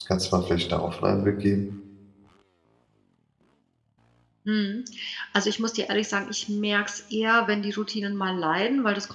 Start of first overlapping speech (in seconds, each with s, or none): none